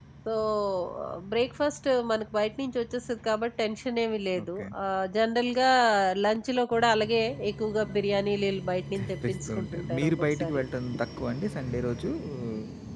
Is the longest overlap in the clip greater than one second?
Yes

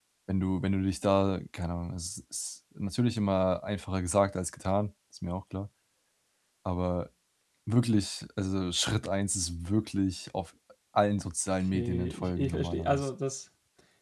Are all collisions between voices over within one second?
No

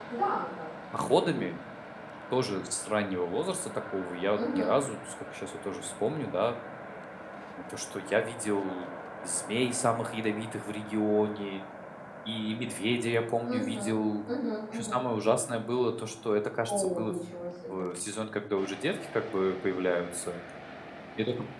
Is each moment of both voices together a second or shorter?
Yes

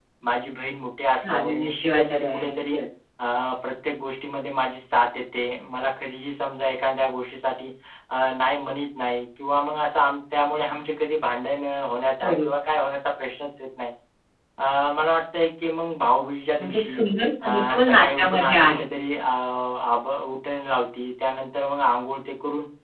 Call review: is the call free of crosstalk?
No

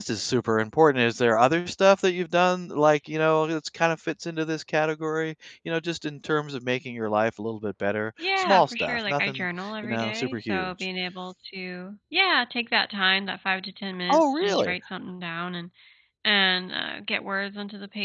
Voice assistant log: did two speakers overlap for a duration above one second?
Yes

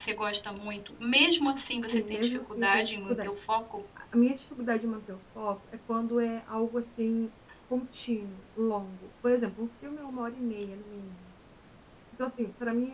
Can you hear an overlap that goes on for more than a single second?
Yes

